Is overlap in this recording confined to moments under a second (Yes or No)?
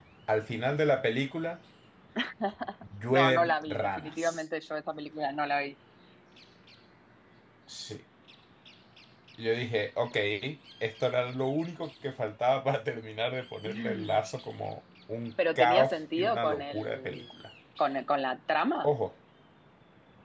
No